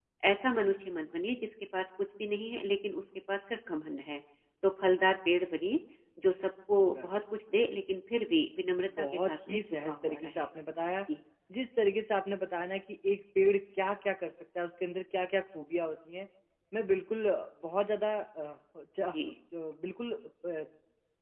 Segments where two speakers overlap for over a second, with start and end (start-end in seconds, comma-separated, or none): 9.0-10.4